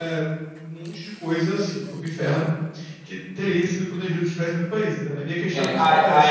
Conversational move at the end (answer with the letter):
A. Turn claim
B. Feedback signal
A